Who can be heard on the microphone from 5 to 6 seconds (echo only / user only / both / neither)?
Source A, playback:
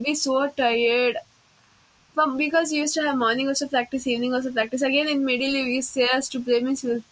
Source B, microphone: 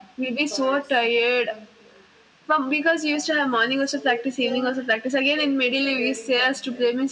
both